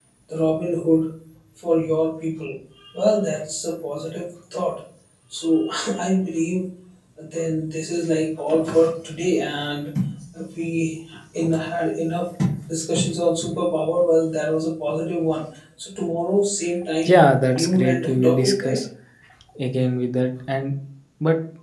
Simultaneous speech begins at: 17.0 s

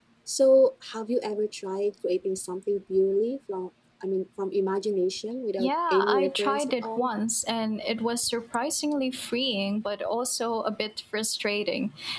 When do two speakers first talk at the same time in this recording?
5.6 s

